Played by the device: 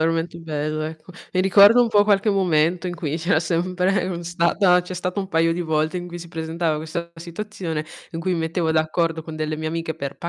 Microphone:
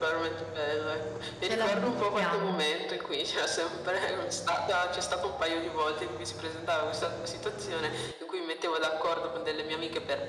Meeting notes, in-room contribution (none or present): present